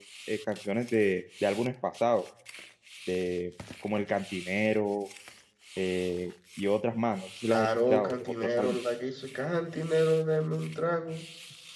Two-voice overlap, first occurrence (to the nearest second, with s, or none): 7 s